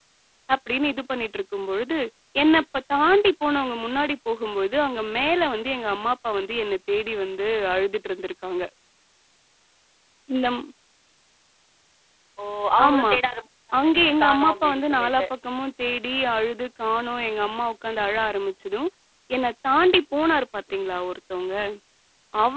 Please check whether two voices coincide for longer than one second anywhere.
Yes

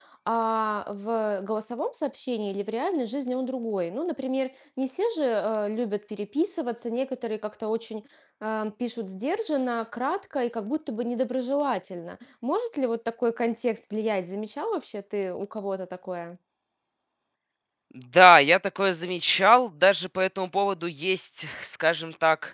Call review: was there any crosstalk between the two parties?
No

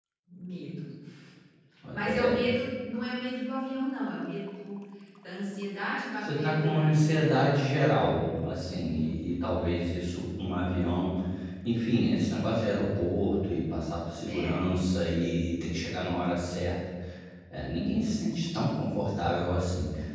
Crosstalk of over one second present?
Yes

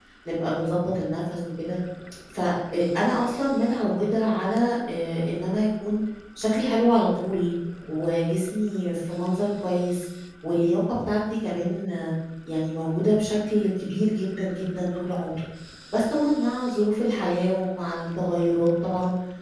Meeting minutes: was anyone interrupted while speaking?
No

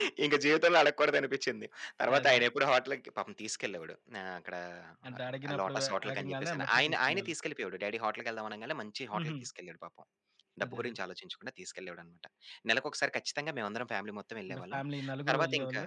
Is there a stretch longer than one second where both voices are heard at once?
Yes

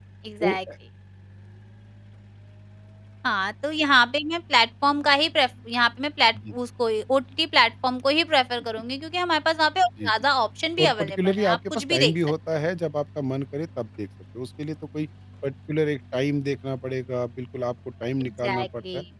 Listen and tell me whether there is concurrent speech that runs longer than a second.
Yes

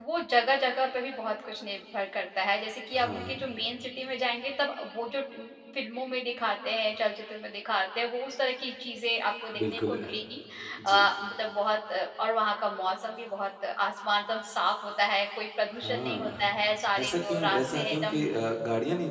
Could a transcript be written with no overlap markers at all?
No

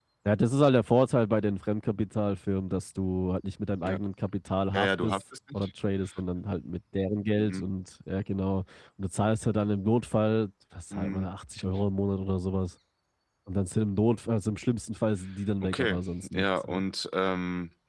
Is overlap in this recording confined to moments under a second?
No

